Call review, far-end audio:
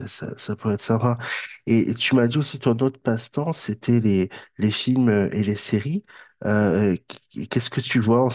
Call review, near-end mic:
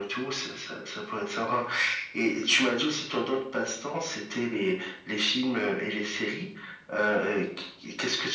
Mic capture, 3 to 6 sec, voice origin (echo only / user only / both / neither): echo only